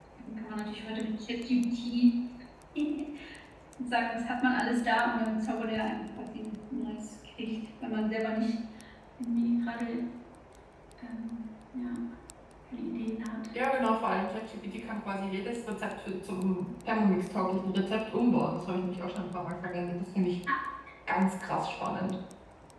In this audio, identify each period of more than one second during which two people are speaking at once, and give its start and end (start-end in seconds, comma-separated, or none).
none